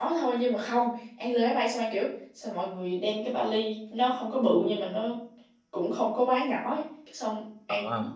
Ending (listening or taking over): listening